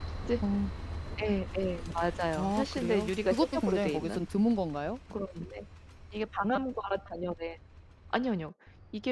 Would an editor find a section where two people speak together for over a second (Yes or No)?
Yes